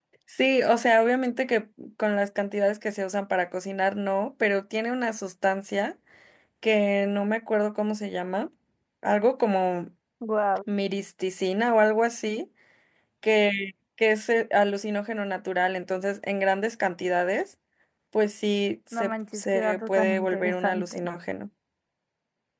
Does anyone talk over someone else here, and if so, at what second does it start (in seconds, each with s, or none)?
18.9 s